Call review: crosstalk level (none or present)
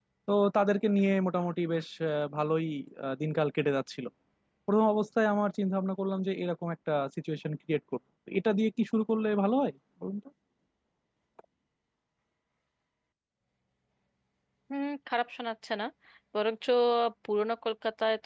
none